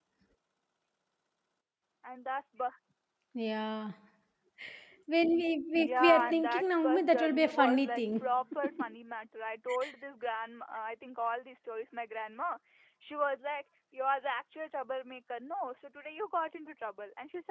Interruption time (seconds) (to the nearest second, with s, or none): 6 s